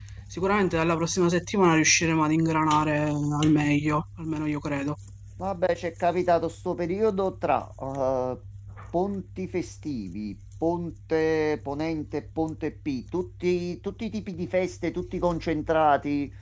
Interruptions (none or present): none